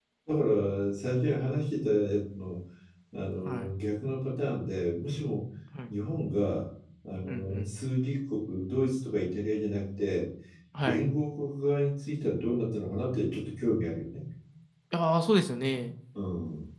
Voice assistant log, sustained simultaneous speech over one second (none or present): none